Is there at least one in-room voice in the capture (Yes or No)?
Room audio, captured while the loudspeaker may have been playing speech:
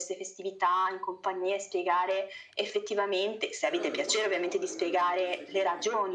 Yes